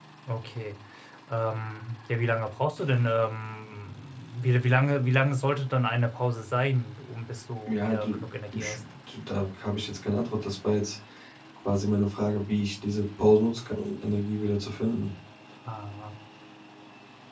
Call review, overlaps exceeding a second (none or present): none